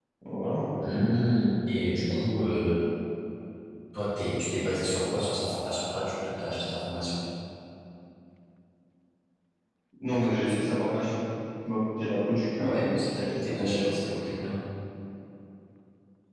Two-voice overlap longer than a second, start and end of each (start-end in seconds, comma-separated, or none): 12.6-13.9